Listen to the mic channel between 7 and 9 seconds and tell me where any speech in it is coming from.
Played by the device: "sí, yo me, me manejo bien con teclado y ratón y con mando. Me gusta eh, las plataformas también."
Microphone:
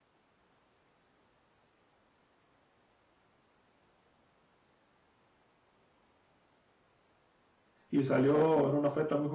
user only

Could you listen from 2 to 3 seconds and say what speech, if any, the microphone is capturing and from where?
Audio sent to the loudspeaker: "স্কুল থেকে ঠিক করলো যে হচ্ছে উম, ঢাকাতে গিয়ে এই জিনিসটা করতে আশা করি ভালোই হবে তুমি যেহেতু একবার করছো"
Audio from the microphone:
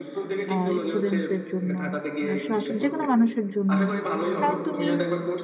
both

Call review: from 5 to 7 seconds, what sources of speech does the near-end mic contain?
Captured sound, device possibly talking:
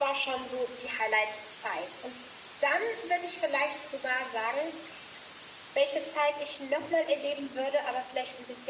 user only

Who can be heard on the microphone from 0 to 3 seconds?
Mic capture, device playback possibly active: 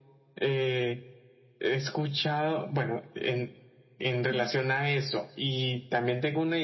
echo only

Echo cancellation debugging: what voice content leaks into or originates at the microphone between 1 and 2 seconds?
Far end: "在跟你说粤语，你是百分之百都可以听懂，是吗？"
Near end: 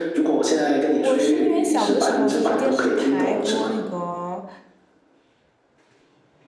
both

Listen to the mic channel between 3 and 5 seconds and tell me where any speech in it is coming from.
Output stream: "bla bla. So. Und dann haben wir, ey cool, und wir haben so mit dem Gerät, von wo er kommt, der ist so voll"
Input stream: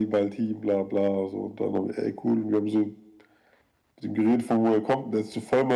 echo only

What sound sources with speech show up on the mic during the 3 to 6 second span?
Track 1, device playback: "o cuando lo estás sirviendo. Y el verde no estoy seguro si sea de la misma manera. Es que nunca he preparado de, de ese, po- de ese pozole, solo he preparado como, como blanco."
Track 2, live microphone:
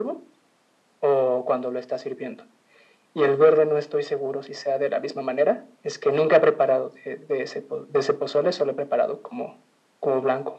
echo only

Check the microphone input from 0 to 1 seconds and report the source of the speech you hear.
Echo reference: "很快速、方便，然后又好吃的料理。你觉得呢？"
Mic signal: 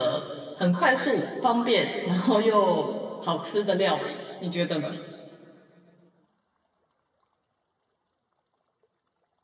echo only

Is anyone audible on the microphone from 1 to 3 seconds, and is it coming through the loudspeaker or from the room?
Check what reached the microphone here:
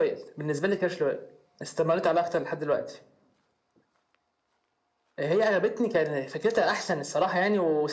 echo only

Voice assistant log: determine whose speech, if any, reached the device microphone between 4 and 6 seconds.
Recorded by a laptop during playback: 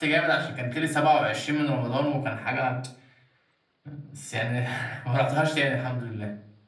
user only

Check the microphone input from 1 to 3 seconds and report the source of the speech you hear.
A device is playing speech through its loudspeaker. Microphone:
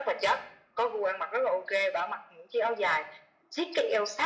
echo only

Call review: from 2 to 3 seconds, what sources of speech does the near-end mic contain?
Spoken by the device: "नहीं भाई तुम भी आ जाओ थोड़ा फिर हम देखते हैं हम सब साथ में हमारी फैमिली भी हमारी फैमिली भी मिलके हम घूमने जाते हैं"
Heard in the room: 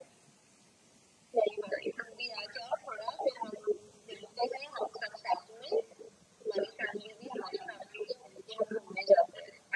echo only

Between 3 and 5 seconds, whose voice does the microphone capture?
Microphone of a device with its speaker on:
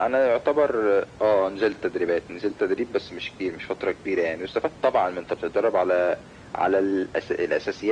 echo only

